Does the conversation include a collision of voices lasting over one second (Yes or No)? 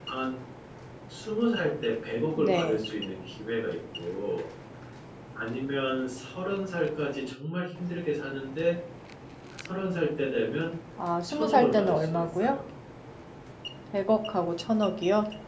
Yes